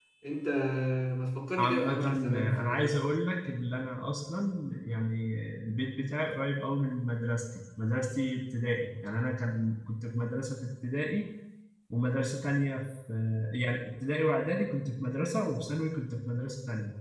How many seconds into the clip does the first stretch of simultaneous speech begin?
1.6 s

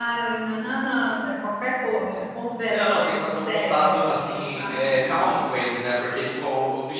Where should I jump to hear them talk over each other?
2.7 s

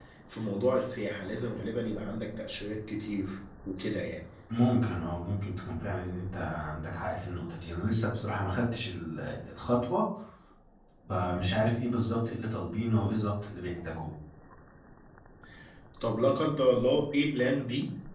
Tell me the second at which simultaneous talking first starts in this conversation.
none

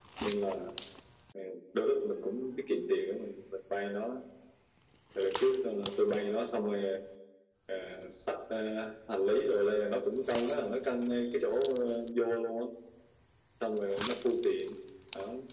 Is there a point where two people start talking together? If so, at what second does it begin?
none

